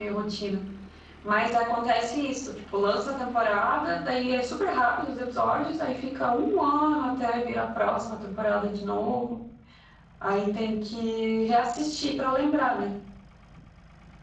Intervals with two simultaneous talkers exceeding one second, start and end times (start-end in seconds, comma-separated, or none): none